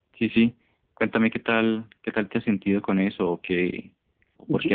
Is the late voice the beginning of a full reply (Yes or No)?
No